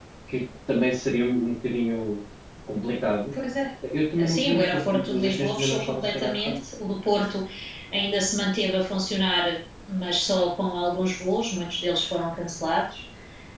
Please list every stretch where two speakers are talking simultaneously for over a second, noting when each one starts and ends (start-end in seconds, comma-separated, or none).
4.3-6.6